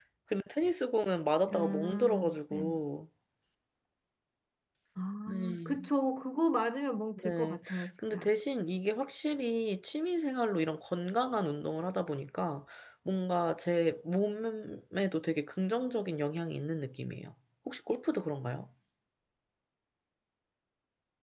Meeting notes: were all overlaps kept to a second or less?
No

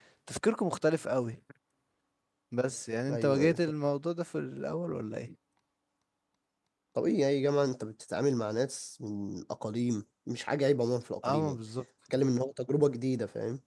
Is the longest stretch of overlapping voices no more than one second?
Yes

